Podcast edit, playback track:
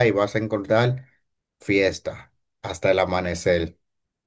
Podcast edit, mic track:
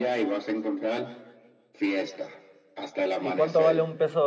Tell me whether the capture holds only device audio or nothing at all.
No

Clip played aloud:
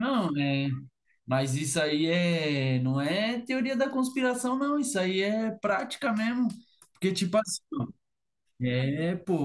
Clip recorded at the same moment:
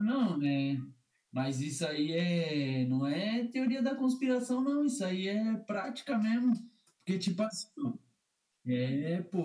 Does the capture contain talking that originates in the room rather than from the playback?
No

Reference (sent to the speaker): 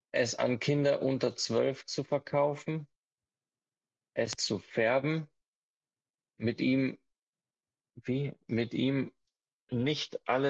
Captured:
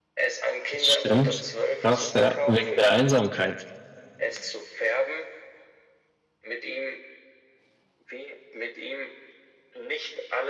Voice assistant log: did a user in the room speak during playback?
Yes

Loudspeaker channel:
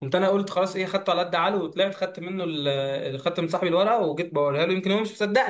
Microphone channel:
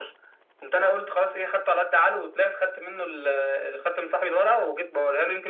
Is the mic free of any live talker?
Yes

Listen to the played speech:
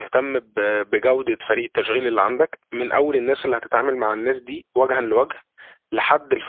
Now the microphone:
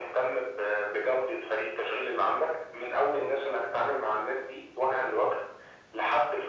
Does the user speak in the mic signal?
Yes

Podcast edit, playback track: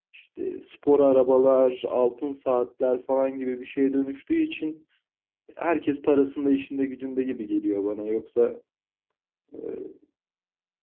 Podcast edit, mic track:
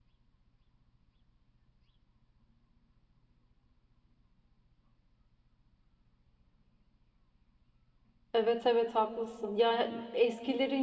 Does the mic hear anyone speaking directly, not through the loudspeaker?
Yes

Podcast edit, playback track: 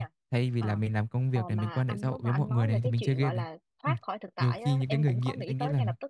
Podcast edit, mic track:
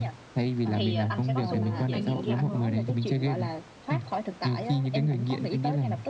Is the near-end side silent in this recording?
No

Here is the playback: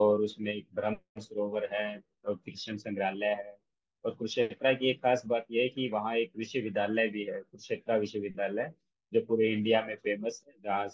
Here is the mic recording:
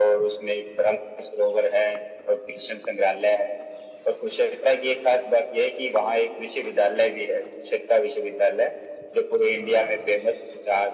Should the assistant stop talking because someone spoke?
No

